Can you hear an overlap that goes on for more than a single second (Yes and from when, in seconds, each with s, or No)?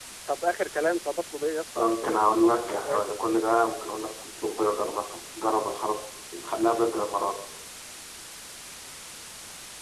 Yes, from 1.8 s